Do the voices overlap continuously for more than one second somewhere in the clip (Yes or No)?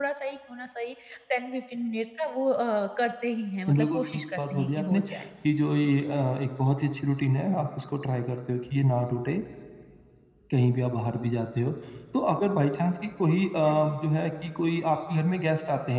Yes